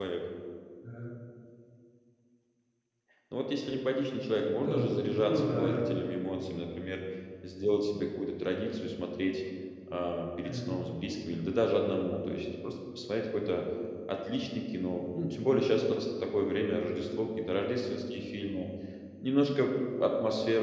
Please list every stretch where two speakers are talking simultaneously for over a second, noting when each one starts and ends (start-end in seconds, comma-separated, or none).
4.6-5.8